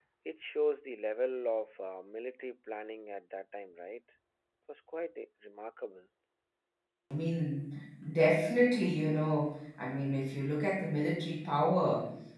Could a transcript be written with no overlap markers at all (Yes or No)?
Yes